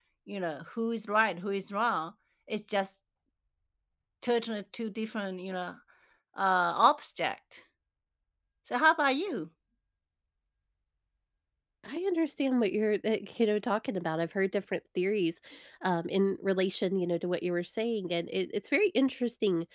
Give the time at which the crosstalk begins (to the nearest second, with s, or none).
none